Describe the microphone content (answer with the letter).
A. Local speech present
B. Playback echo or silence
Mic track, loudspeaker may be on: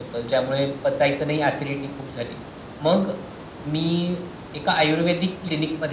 B